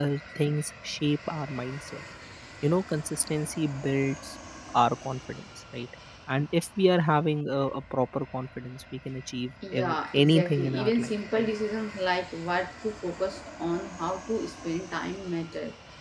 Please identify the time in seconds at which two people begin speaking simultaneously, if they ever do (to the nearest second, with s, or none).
10 s